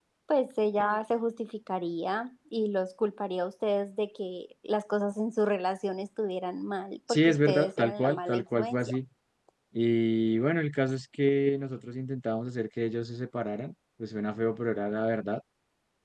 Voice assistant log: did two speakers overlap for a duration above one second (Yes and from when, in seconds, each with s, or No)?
Yes, from 7.1 s